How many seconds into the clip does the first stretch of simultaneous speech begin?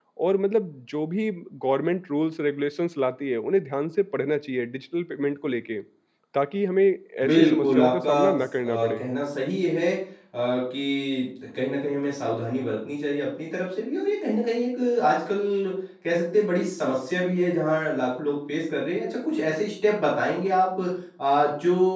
7.2 s

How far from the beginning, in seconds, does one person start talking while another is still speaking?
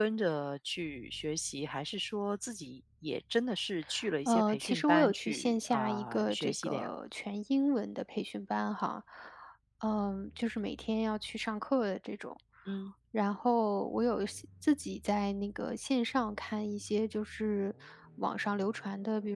4.2 s

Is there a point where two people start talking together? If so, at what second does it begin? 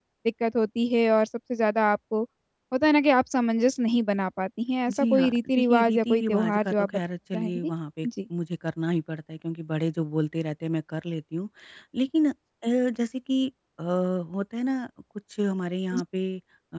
4.9 s

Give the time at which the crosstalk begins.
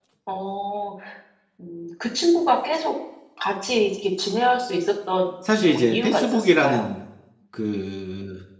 5.4 s

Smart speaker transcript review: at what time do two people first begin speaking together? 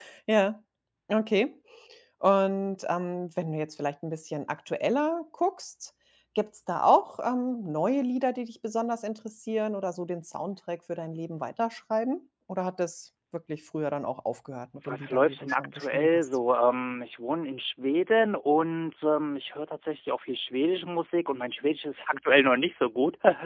14.8 s

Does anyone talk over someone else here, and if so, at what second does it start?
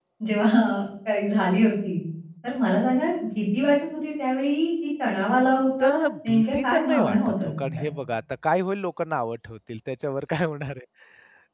5.8 s

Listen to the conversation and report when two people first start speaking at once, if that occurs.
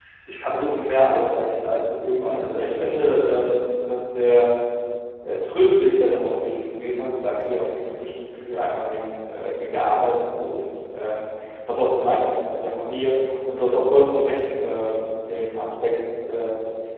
2.2 s

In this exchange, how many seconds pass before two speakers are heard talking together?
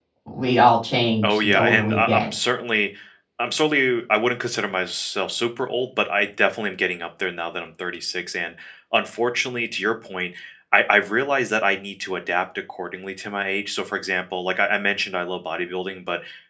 1.2 s

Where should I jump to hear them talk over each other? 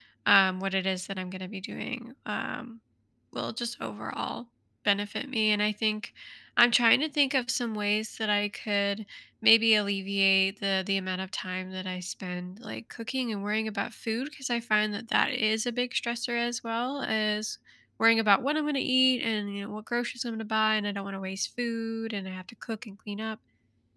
none

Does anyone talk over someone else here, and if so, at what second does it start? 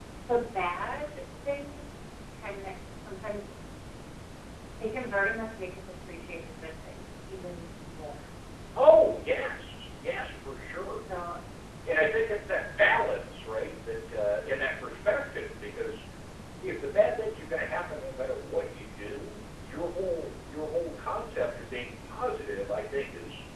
none

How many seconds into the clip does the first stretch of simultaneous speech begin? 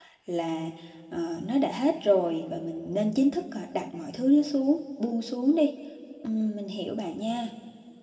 none

